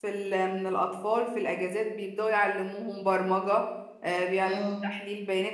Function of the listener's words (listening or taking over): listening